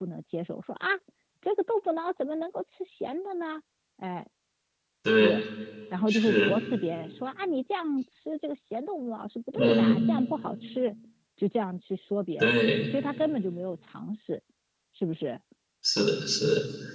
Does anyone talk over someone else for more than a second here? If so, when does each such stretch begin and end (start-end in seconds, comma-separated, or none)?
none